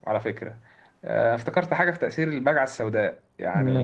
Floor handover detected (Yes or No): No